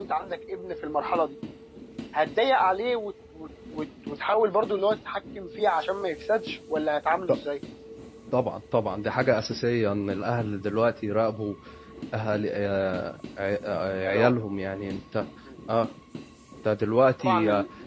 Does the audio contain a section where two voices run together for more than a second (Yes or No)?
No